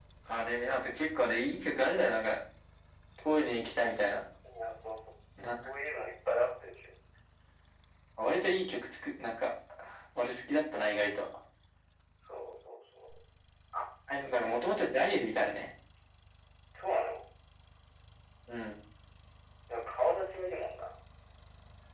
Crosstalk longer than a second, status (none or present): none